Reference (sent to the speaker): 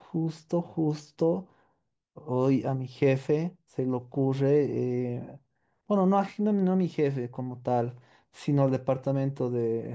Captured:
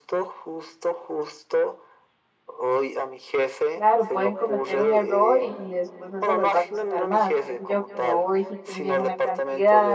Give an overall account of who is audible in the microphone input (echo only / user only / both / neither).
both